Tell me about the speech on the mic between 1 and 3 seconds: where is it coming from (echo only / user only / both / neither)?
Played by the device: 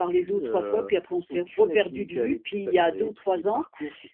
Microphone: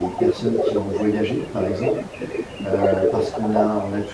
both